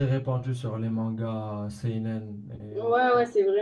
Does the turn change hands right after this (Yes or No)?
Yes